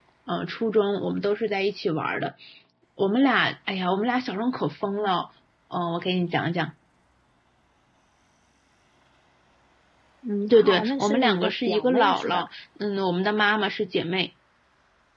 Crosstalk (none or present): present